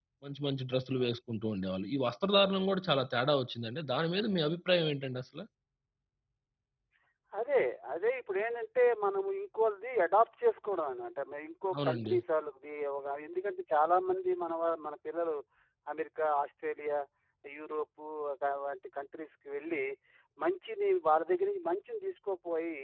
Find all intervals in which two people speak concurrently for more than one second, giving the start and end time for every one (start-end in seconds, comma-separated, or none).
none